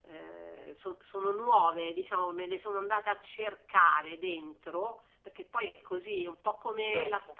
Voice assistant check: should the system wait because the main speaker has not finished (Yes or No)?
Yes